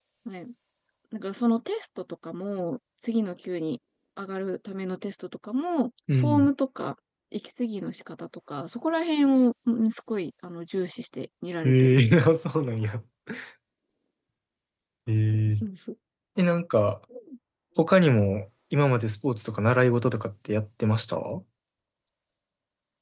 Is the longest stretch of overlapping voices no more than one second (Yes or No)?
Yes